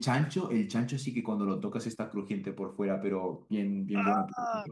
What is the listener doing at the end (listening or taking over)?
listening